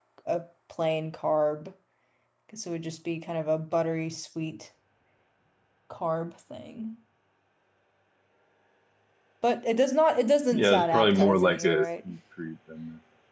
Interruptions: present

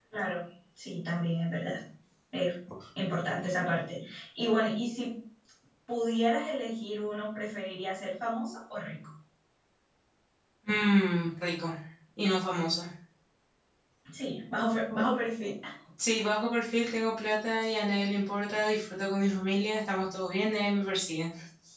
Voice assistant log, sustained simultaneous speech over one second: none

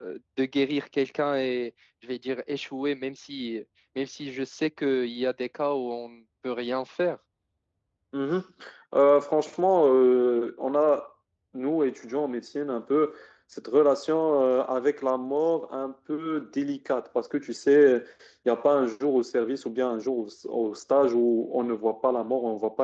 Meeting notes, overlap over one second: none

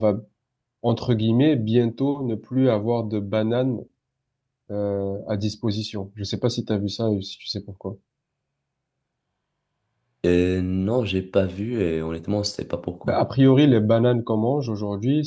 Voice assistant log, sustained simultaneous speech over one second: none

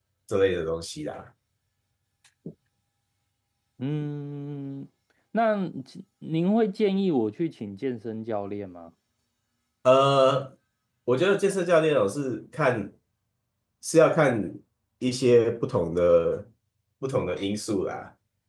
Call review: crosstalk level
none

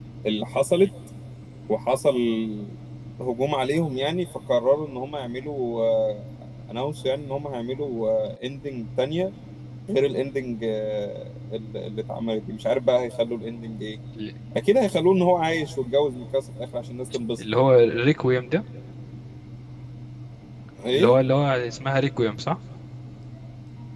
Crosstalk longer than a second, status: none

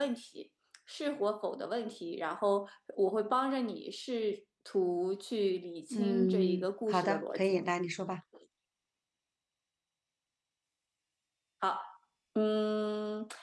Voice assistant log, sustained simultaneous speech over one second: present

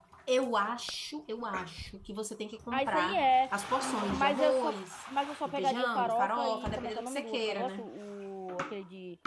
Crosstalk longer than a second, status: present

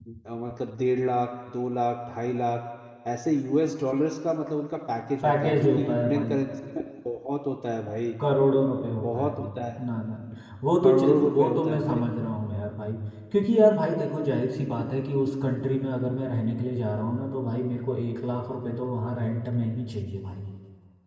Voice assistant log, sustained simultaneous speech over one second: present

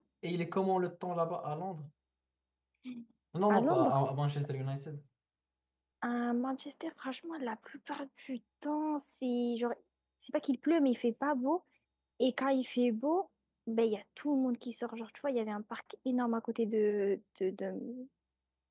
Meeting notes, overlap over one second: none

